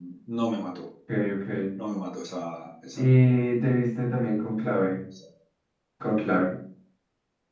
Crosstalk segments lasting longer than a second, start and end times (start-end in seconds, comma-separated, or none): none